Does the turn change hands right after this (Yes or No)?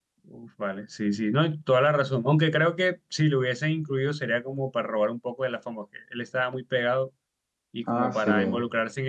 No